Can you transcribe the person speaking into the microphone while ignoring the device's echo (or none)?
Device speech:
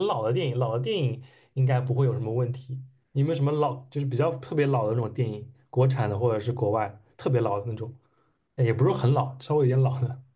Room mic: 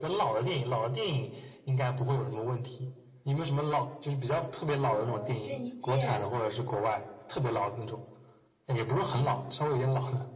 和郑伊健，